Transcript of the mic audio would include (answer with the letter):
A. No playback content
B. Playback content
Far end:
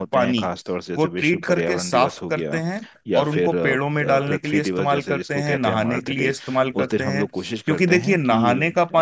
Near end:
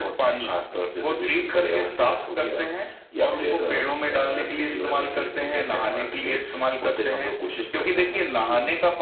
B